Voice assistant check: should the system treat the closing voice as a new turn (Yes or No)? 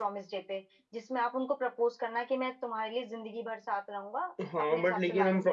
Yes